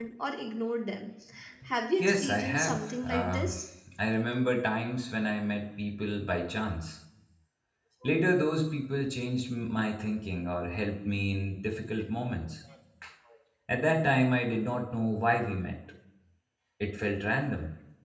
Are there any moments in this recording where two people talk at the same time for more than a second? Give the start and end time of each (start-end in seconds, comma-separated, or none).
2.0-3.5